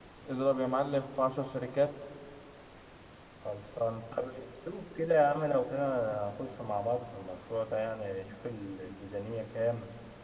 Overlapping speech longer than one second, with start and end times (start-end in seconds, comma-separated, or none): none